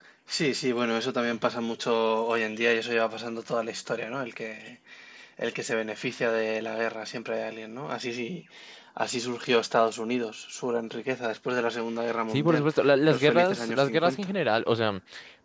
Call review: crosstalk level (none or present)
present